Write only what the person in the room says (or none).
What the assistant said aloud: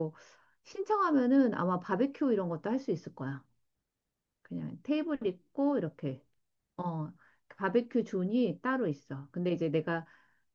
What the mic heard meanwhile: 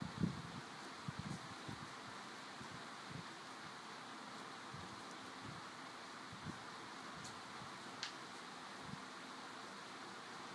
none